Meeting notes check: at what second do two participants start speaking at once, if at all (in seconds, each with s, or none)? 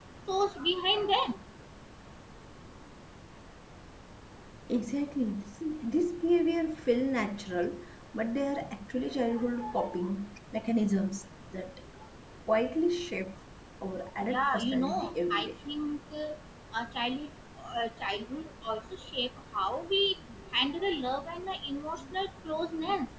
14.3 s